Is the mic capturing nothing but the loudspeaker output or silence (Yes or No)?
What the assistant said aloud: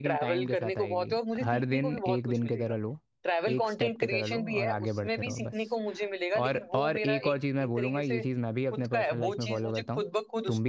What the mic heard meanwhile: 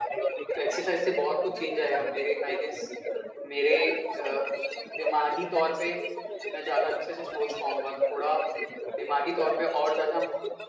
No